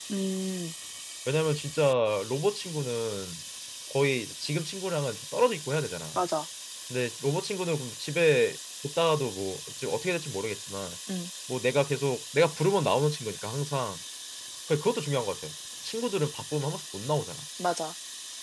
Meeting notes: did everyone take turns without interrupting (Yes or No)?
Yes